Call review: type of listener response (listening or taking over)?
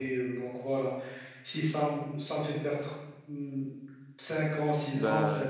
listening